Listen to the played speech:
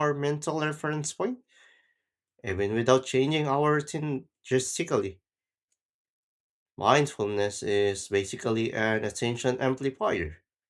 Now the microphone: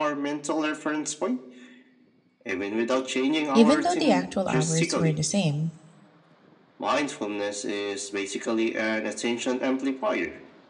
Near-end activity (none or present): present